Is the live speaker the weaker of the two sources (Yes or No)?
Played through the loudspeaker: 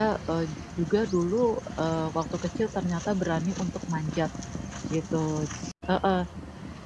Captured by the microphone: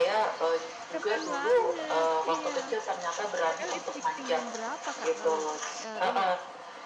Yes